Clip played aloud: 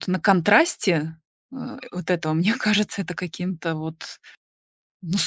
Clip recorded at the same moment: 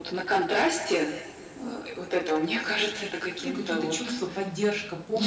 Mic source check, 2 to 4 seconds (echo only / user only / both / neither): both